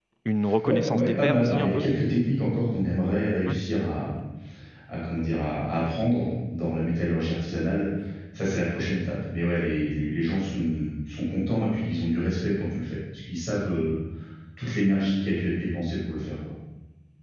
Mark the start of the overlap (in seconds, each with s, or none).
0.6 s